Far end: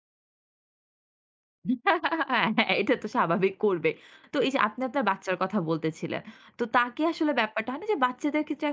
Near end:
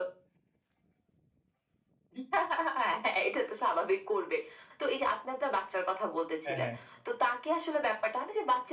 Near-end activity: present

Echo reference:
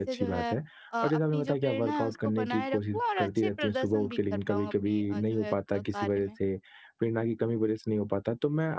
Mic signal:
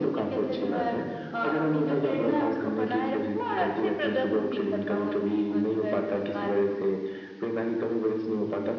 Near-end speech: none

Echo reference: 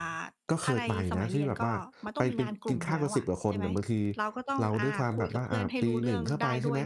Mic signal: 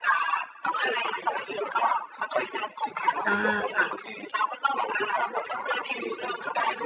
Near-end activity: present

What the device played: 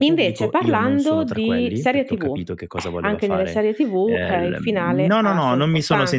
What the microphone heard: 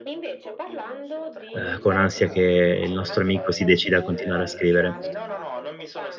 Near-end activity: present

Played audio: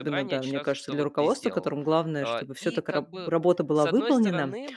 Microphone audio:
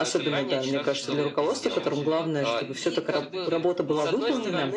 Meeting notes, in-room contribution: present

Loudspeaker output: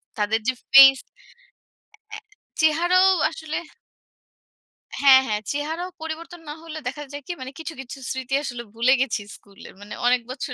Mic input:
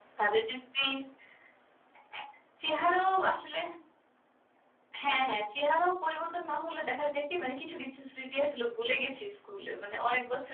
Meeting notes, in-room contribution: none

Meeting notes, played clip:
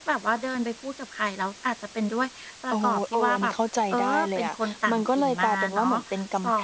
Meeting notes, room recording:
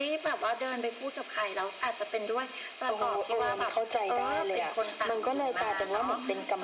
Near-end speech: present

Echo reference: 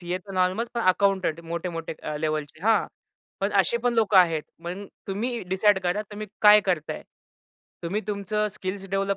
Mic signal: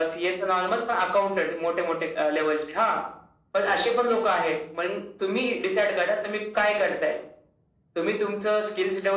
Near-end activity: none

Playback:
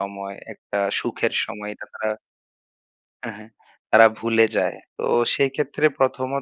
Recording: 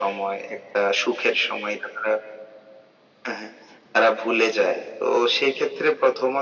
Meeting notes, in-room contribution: none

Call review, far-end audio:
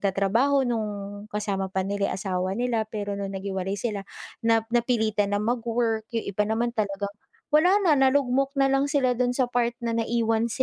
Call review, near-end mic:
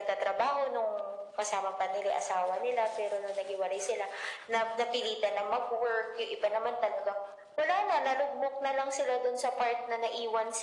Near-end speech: none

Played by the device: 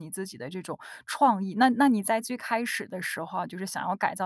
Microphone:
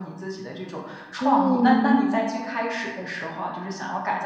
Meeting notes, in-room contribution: present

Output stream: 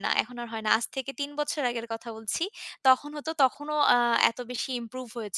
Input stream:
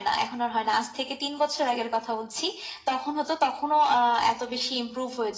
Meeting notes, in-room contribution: none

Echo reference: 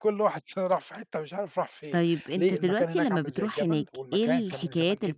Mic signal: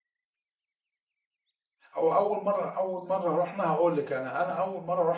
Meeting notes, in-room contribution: present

